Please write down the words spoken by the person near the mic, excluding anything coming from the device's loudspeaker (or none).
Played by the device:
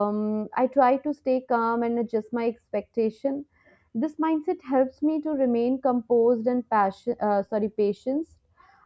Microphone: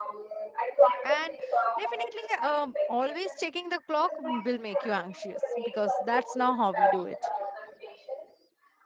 and definitely, um, always checking the clock will make you anxious because that's now how we do it.